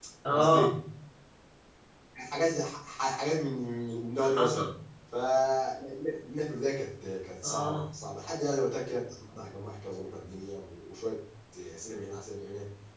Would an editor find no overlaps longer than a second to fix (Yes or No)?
Yes